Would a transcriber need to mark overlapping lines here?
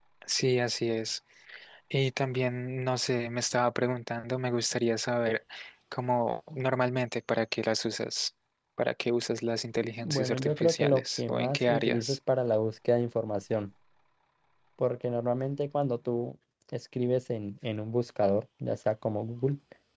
Yes, from 10.0 s

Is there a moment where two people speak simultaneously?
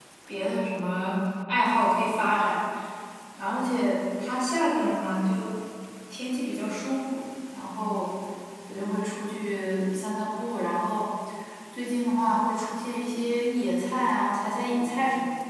No

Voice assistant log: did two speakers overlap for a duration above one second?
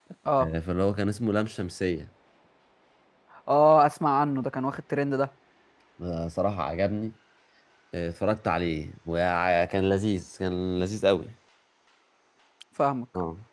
No

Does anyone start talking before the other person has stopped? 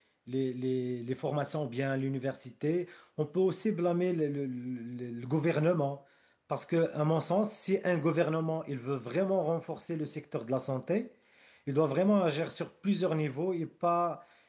No

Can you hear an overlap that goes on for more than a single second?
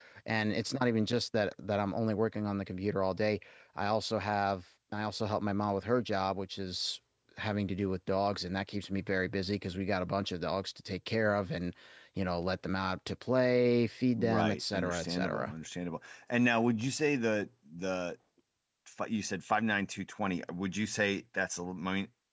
Yes, from 14.2 s

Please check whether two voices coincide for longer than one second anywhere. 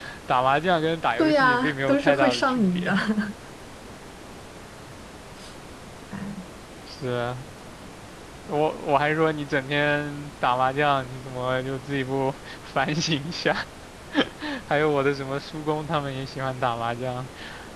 Yes, from 1.2 s

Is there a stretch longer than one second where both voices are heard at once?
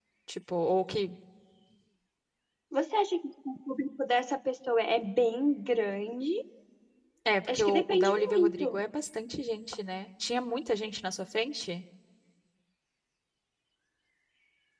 Yes, from 7.5 s

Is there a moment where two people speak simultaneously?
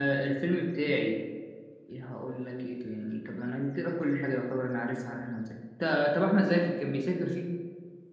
No

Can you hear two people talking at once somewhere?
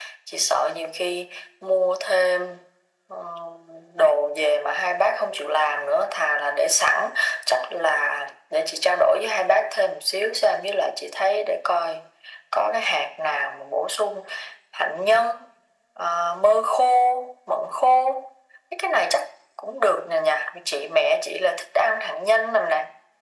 No

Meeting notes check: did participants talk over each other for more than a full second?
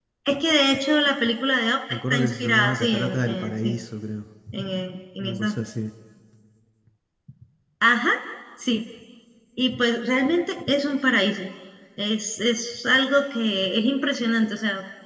Yes, from 1.9 s

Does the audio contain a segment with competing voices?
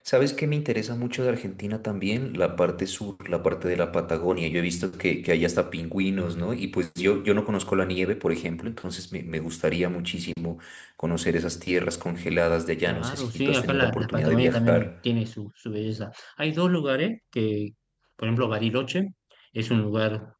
Yes, from 12.9 s

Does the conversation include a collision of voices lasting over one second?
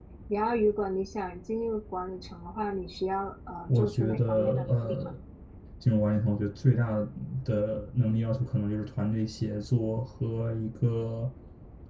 Yes, from 3.7 s

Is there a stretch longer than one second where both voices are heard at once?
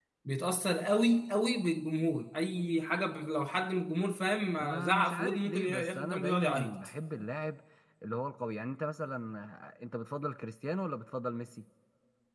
Yes, from 4.6 s

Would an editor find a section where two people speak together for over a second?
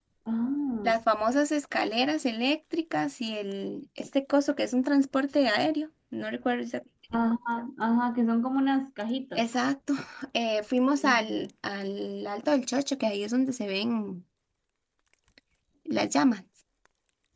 No

